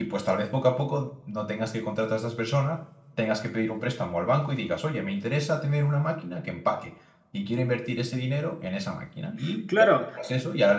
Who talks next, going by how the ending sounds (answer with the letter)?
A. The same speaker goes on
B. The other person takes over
A